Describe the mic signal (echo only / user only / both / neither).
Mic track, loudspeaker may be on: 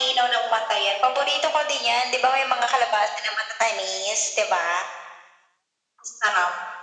echo only